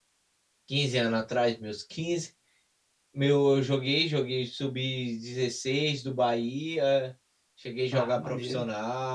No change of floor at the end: Yes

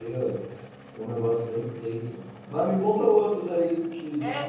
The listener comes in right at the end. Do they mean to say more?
Yes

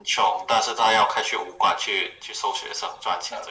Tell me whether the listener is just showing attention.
No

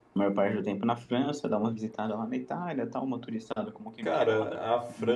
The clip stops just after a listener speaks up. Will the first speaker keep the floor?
No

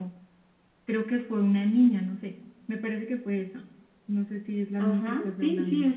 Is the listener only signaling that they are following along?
No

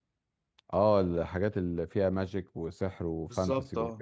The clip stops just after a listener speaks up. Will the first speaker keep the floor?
No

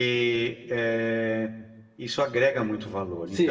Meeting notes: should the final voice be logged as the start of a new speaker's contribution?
Yes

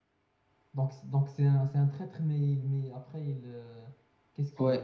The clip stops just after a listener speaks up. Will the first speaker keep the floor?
No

